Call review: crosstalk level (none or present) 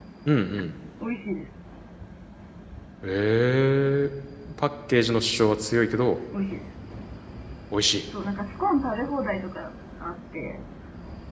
none